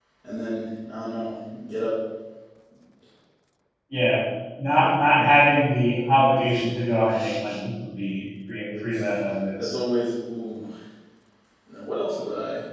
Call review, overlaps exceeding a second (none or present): none